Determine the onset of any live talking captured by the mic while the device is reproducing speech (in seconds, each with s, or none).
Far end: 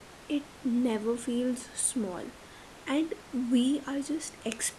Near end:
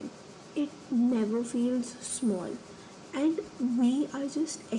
none